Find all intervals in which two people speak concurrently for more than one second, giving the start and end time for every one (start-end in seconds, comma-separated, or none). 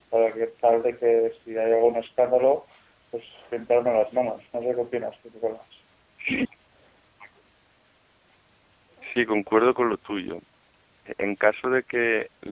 none